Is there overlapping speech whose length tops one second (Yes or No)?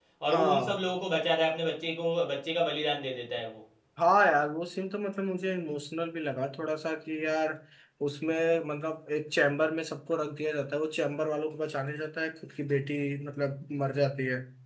No